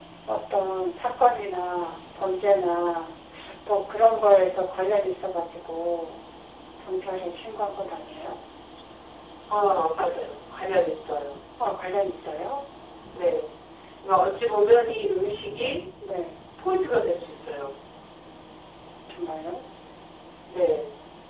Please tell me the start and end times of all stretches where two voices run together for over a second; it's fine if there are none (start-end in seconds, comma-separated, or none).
none